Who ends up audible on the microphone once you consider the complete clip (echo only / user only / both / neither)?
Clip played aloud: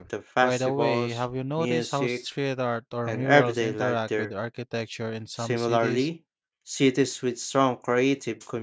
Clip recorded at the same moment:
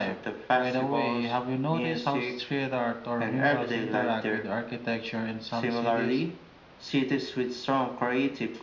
echo only